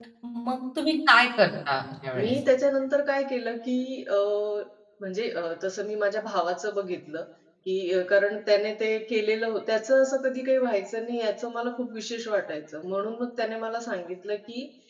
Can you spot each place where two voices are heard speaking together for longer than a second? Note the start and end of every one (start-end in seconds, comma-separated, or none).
none